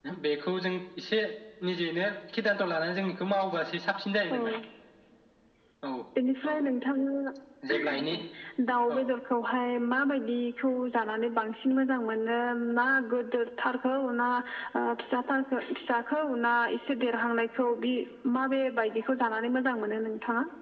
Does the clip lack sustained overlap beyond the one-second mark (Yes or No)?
Yes